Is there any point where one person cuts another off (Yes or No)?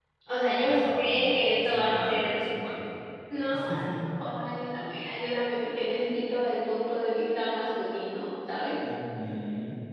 Yes